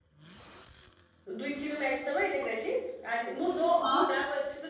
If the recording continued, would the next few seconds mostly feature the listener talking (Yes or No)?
No